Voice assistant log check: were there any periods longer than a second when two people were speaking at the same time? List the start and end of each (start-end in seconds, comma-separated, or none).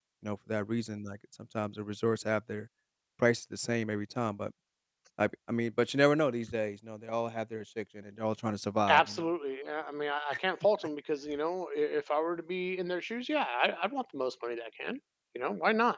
none